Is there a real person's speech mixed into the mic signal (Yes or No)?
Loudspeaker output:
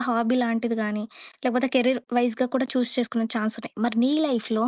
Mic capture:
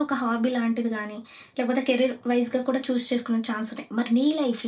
No